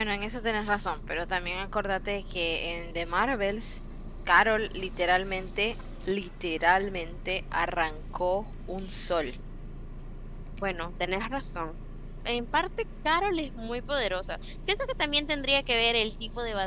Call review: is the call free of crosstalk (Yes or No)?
Yes